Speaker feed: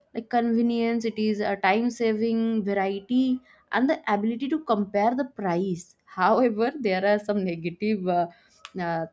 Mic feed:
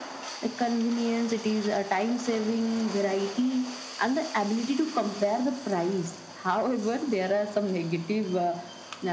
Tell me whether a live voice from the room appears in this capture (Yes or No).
No